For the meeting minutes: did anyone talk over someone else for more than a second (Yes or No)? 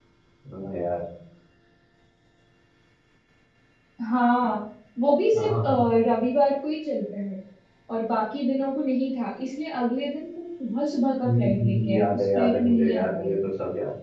Yes